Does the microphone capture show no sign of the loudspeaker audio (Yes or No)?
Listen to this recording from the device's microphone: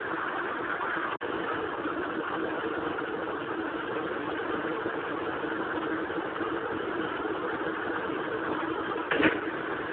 Yes